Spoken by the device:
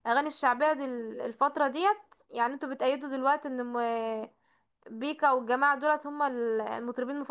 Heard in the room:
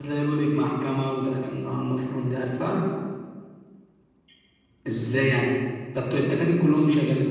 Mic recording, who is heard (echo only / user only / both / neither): user only